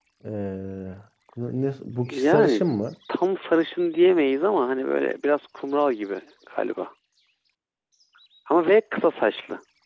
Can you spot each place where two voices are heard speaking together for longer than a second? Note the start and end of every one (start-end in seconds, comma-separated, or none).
none